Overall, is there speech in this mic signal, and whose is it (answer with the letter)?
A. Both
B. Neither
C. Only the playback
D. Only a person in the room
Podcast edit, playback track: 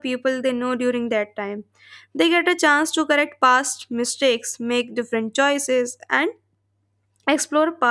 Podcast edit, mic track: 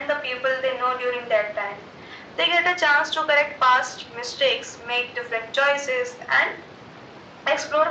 C